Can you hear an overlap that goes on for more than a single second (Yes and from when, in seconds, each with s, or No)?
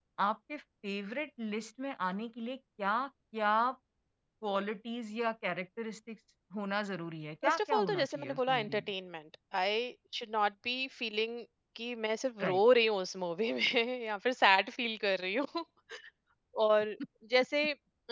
Yes, from 7.4 s